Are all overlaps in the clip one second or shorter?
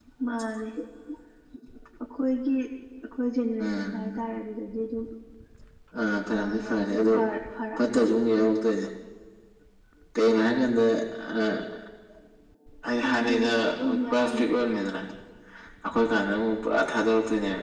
No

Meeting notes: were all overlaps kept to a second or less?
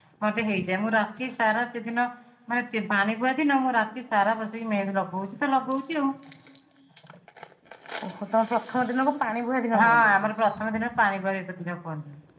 Yes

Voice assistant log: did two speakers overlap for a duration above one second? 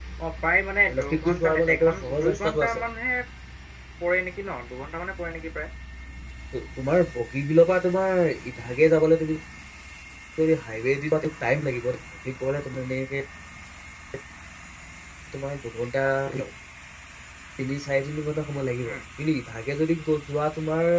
Yes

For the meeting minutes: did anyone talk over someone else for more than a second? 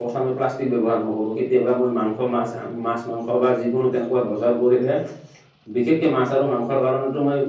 No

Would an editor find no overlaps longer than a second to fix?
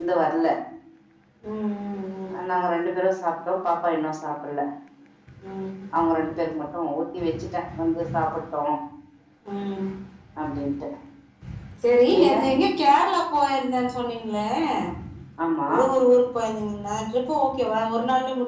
Yes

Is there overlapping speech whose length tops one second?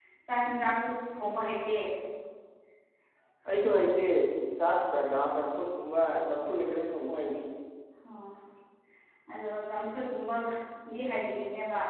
No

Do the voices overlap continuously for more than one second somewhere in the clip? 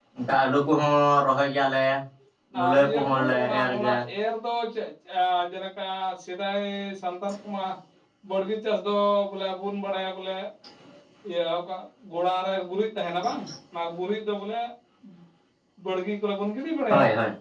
Yes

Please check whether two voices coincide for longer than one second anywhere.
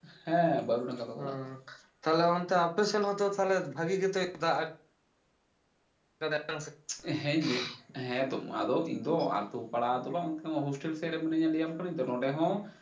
No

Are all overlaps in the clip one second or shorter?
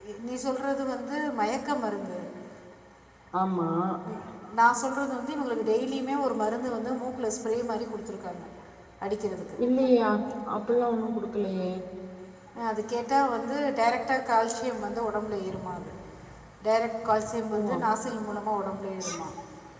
Yes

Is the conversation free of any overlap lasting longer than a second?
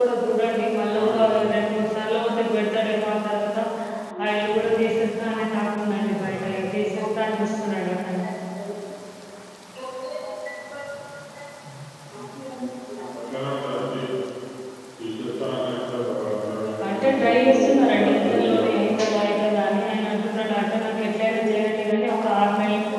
No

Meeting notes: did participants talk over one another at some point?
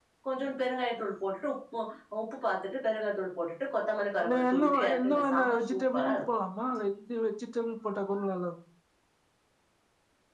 Yes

